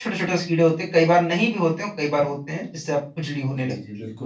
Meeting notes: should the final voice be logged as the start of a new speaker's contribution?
Yes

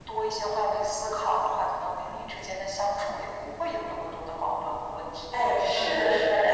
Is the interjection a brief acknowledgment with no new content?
No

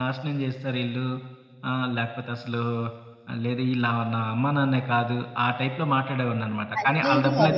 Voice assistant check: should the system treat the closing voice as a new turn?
Yes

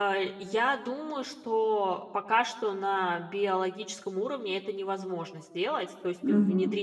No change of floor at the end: Yes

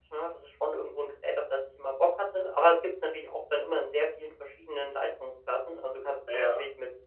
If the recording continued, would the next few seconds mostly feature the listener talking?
No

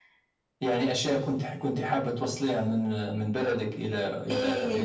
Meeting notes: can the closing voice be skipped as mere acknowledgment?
No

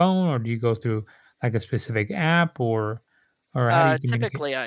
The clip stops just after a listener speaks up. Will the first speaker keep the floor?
No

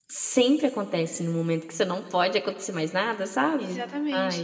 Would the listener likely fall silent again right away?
No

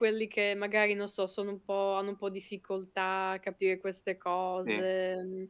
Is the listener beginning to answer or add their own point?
No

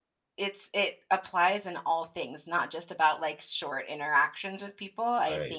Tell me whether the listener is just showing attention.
Yes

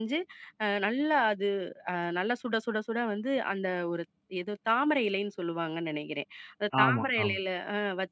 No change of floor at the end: Yes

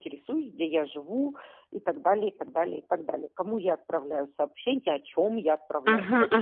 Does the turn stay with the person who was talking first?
No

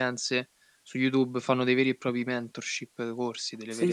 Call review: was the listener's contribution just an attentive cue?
No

